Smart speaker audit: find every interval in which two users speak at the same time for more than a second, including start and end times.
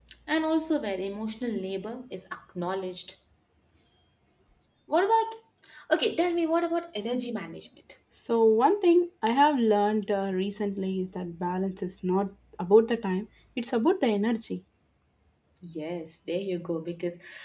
none

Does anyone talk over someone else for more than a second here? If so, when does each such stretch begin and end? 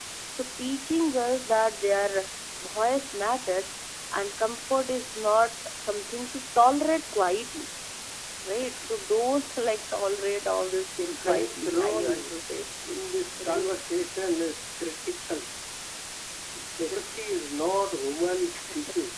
11.0-12.3

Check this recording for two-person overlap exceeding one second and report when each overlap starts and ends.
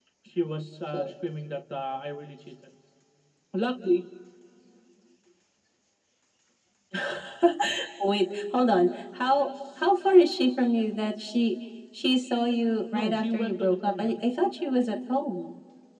12.9-14.1

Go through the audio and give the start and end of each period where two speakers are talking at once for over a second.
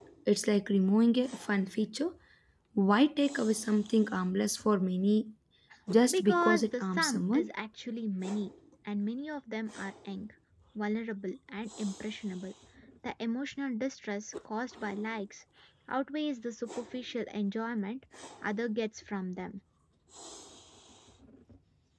6.1-7.5

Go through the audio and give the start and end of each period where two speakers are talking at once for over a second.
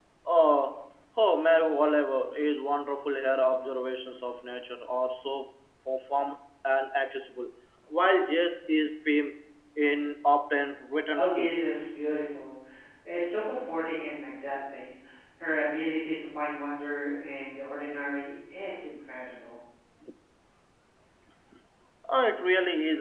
none

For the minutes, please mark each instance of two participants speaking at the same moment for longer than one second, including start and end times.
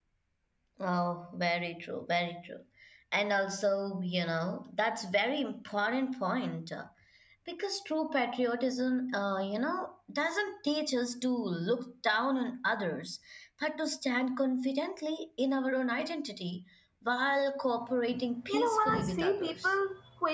18.5-19.7

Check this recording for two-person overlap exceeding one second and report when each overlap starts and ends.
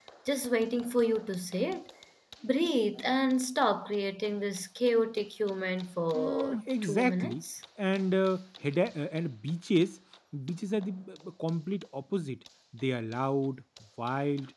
6.1-7.4

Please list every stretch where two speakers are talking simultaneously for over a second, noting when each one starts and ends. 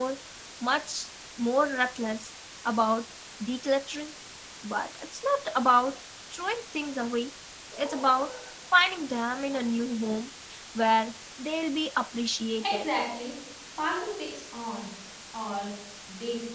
none

